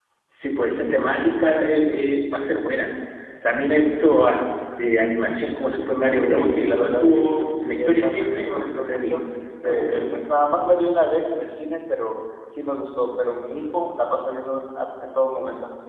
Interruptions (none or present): present